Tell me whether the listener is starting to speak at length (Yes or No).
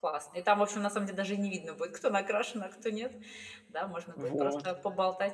No